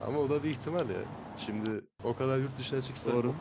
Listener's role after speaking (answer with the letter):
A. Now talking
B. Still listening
B